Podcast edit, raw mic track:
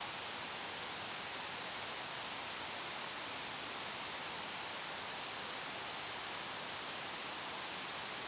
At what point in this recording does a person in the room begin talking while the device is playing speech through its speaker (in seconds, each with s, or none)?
none